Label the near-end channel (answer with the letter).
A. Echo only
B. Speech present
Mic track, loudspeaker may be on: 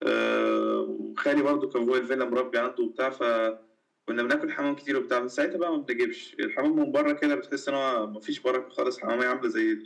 A